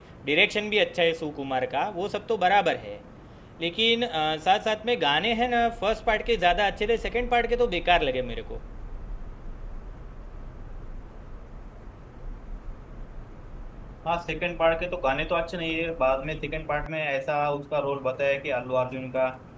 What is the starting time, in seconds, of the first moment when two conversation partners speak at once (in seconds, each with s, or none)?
none